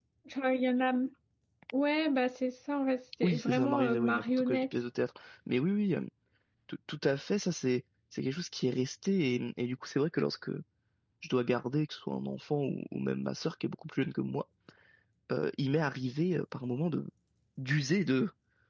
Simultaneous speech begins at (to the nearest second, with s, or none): 3 s